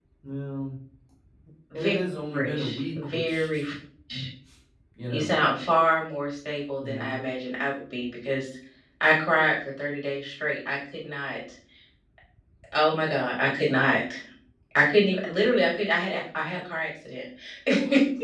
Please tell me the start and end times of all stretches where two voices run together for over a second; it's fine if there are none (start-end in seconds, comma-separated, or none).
2.3-3.7